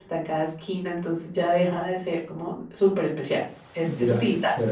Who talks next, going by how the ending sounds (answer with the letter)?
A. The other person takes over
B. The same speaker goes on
A